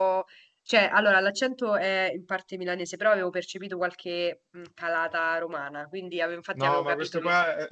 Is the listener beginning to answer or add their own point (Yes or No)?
Yes